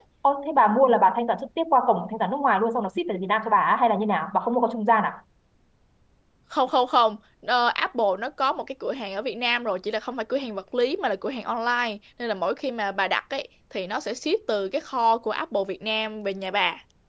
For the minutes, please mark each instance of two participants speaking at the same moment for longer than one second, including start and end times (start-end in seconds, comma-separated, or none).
none